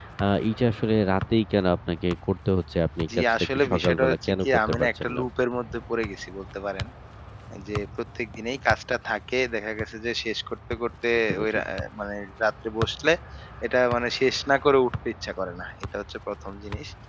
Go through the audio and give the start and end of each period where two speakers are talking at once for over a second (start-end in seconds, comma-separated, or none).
3.1-5.2